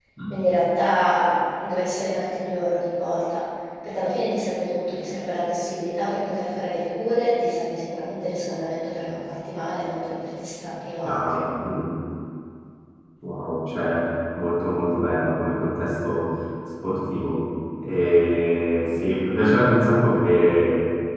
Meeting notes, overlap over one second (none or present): none